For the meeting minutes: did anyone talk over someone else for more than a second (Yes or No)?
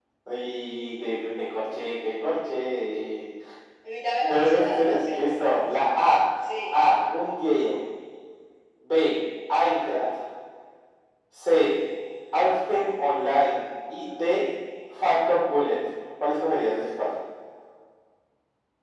Yes